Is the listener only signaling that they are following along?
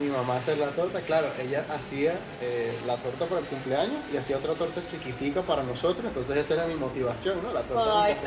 No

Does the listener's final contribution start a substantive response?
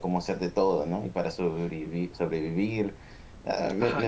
Yes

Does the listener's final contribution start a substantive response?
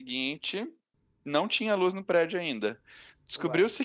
No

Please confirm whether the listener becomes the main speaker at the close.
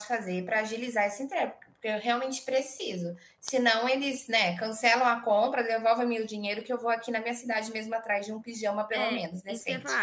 Yes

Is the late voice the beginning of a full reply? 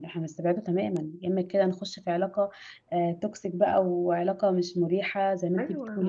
Yes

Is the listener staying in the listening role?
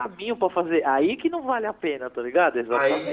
No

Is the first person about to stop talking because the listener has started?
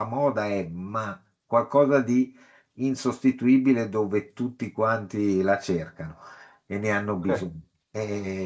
No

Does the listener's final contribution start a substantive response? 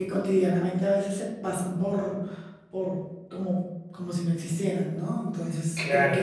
Yes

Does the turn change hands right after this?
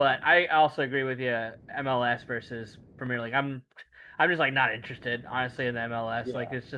No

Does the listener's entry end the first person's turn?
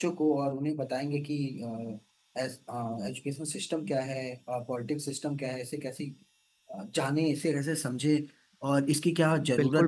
Yes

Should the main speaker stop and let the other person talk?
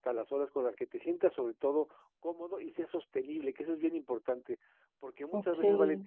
No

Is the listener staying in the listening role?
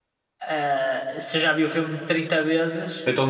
No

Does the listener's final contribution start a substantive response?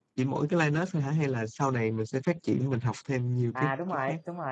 Yes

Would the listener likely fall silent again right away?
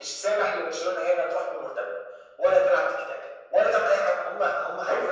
No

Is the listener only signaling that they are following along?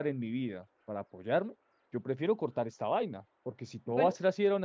Yes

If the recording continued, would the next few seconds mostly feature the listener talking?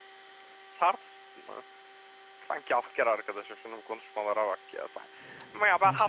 No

